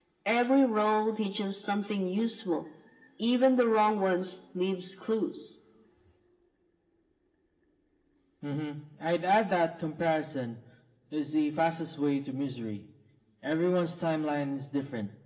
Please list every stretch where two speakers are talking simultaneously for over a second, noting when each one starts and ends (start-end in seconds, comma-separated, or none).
none